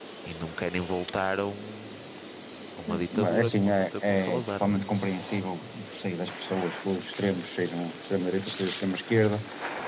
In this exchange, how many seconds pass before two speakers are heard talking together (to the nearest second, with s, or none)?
3 s